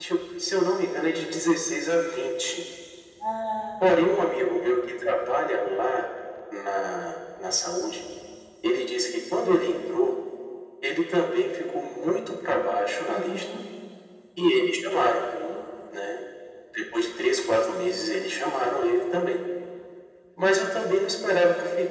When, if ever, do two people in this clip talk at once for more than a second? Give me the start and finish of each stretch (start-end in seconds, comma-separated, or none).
none